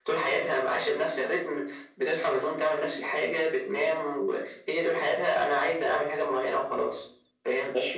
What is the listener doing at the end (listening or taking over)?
taking over